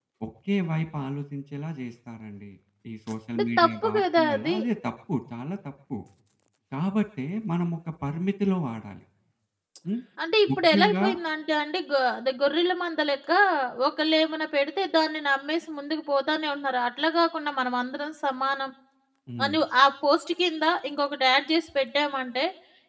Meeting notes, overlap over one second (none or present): present